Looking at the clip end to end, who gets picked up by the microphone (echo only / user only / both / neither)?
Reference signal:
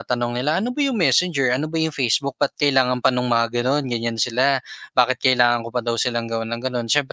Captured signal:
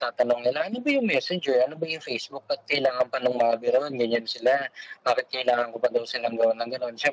echo only